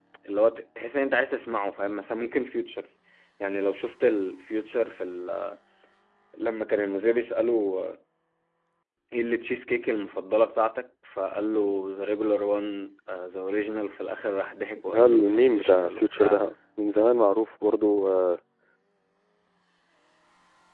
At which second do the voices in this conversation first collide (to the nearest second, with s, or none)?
15 s